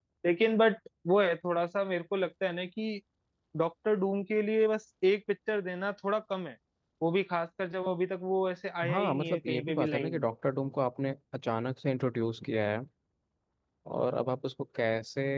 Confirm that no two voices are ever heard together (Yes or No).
No